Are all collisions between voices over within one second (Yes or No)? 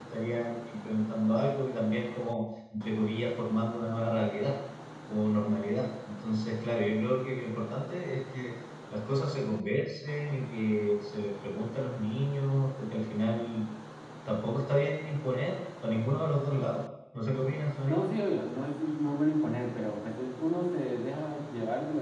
Yes